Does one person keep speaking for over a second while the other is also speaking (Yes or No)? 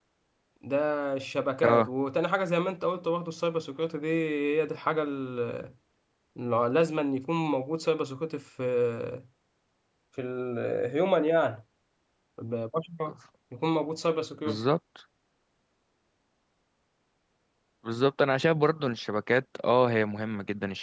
No